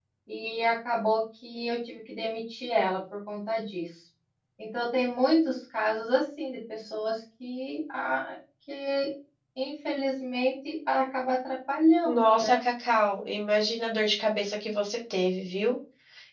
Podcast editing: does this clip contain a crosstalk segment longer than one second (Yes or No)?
No